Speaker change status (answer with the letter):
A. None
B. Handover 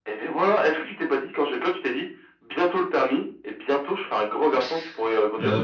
B